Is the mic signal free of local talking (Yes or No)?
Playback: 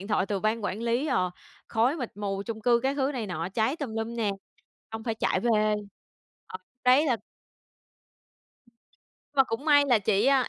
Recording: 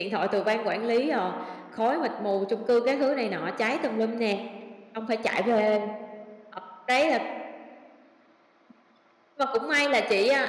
Yes